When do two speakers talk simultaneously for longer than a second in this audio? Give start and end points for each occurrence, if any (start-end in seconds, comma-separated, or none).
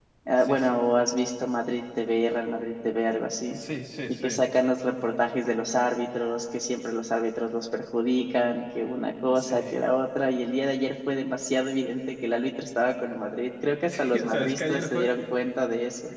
13.9-15.1